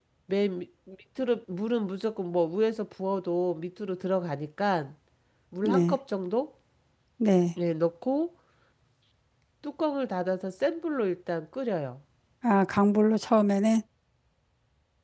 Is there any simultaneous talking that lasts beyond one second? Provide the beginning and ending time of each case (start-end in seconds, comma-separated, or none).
none